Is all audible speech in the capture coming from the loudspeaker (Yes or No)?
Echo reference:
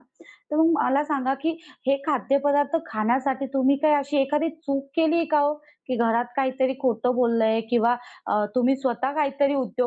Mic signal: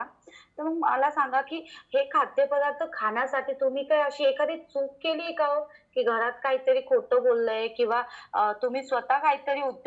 Yes